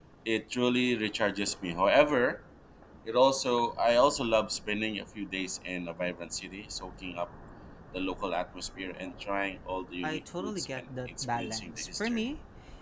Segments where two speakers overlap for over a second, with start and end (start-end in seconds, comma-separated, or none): 10.0-12.2